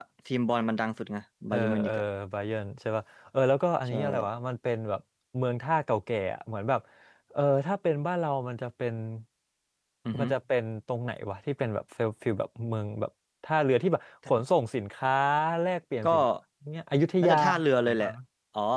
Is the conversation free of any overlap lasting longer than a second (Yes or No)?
Yes